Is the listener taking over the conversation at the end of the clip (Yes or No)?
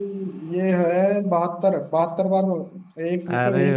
Yes